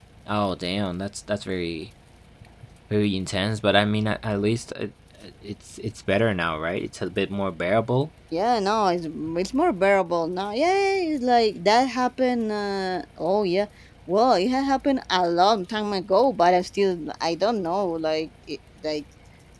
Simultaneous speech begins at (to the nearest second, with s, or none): none